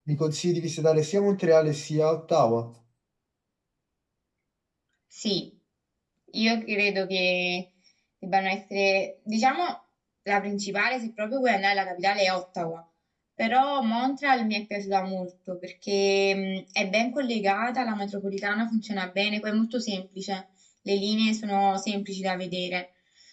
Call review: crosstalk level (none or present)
none